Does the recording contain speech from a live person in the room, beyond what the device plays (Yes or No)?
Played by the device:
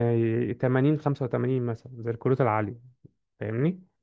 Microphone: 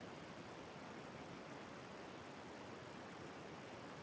No